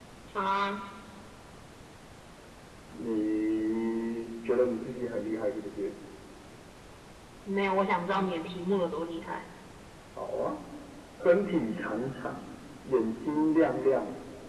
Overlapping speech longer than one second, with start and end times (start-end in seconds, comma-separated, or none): none